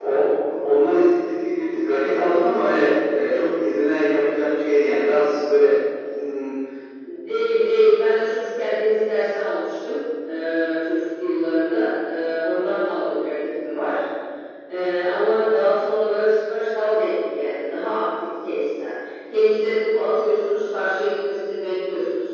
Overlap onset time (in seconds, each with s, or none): none